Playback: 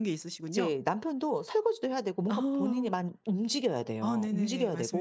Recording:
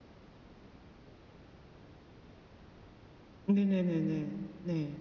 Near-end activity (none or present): present